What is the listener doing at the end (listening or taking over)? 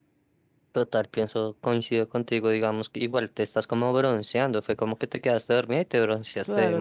taking over